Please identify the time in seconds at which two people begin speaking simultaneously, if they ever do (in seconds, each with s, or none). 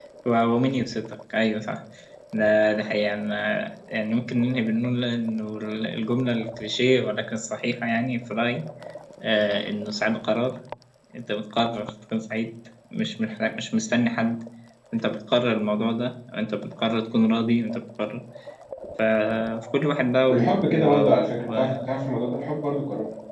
20.3 s